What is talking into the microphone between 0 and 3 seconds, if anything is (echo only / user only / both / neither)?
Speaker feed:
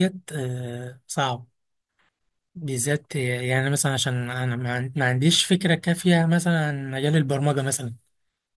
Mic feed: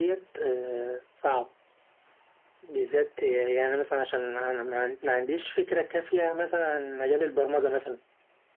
echo only